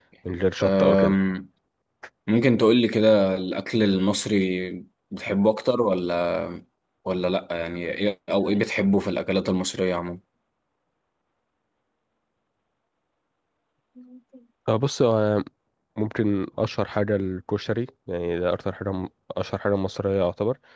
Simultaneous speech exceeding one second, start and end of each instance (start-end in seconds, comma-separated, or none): none